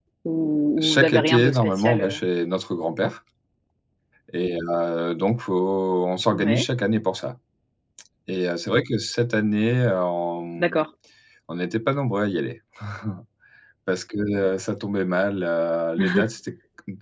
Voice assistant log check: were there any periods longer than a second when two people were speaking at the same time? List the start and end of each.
0.8-2.2

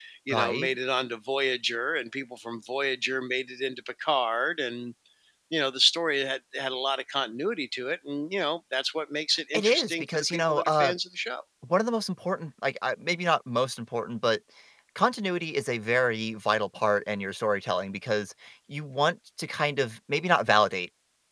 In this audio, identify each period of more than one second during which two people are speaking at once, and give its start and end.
9.5-10.9

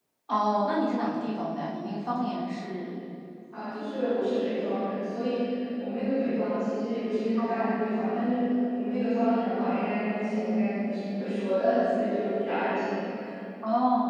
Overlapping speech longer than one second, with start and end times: none

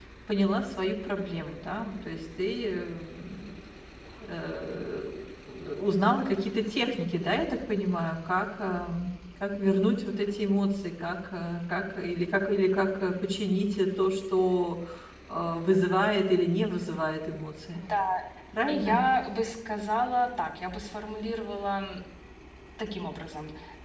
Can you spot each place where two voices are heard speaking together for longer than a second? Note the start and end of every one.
none

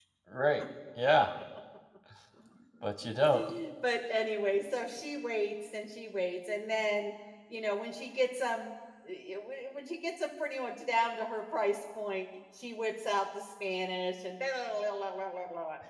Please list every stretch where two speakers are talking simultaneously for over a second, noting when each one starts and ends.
none

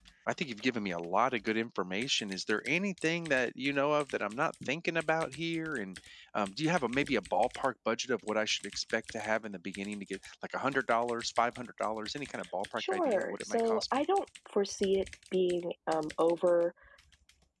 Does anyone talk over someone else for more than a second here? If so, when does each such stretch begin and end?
12.8-14.0

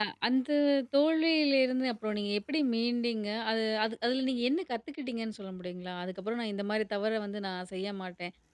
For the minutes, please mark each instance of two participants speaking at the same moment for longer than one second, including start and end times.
none

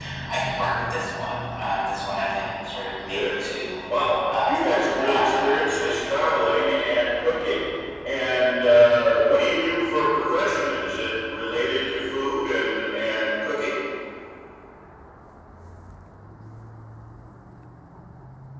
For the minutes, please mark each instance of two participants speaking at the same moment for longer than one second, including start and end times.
4.4-5.9

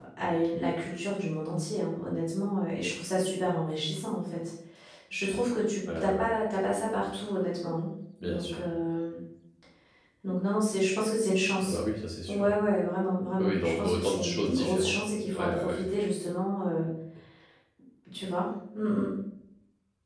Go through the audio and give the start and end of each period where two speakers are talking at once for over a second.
13.4-15.8

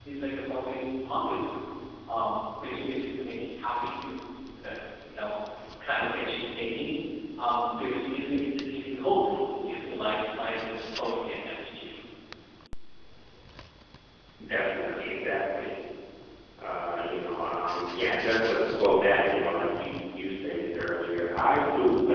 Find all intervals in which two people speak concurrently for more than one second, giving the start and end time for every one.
none

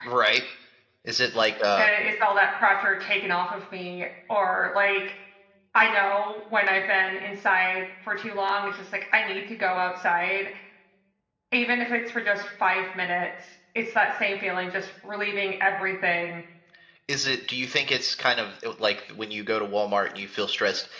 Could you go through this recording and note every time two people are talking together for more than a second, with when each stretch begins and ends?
none

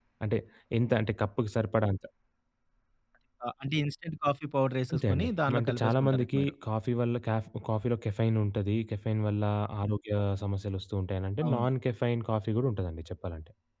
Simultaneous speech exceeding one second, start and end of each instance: 4.9-6.5

